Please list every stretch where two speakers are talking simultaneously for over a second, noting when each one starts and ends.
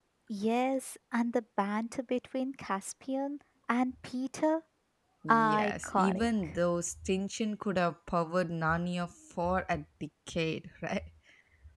5.3-6.6

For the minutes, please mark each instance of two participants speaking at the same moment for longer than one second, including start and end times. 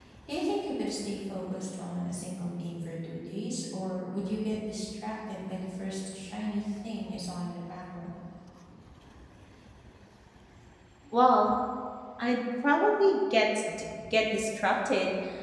none

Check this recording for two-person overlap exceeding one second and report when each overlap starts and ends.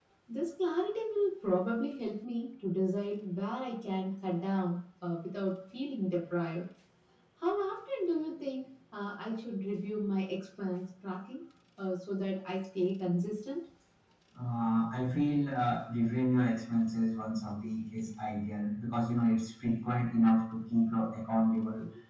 none

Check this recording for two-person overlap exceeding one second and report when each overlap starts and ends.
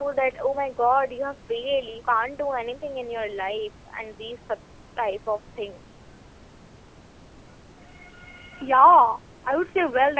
none

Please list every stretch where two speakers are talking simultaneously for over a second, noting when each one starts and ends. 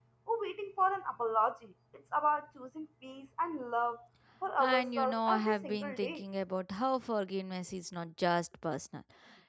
4.6-6.2

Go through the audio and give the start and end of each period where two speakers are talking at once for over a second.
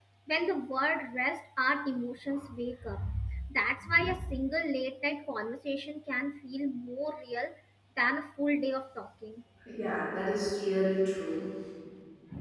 none

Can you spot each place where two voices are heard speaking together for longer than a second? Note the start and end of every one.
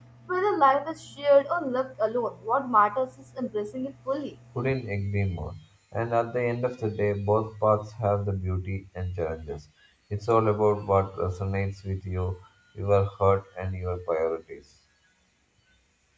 none

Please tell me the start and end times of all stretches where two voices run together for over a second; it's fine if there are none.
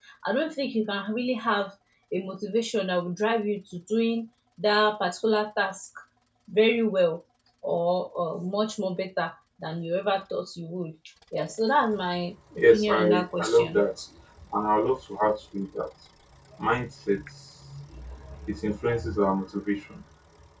12.6-13.9

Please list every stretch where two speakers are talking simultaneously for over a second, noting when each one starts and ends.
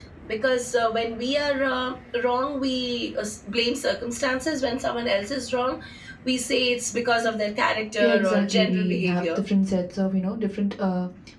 8.0-9.4

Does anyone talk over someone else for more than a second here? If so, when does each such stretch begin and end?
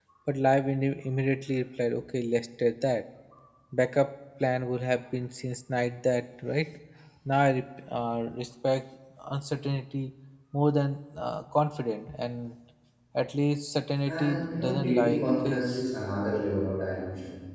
14.1-15.7

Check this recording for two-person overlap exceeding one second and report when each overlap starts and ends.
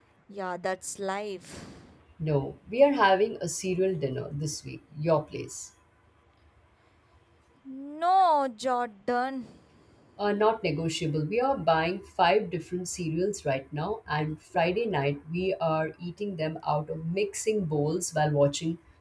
none

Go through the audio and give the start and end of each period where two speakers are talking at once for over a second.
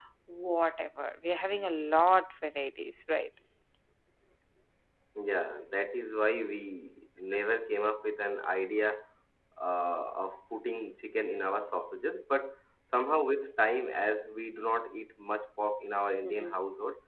none

